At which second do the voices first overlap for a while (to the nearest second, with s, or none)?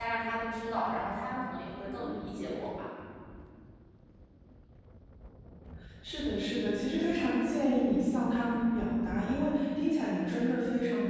none